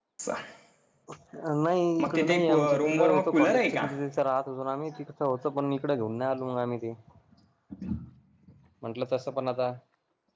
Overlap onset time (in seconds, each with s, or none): 2.0 s